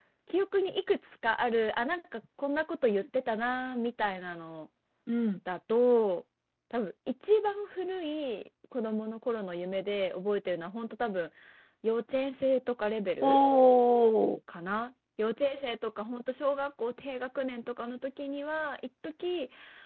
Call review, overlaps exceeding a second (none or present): none